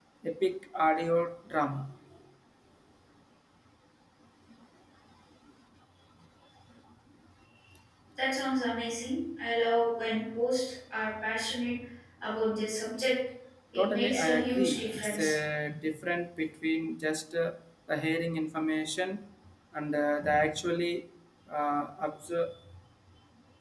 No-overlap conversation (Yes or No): No